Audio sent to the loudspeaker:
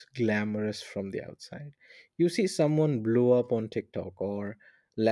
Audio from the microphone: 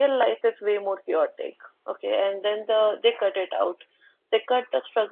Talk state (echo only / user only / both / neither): user only